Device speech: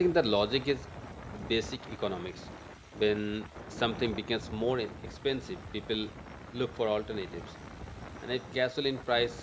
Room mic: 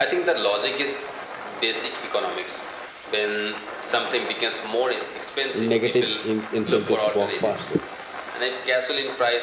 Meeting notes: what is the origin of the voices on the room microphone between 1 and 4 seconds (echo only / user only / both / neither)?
echo only